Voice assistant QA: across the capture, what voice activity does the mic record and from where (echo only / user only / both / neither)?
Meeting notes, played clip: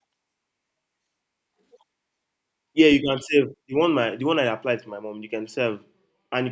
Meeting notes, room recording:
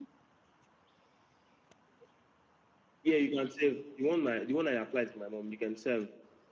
echo only